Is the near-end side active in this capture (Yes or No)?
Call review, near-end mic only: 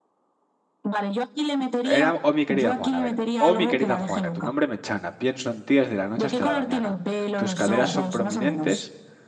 Yes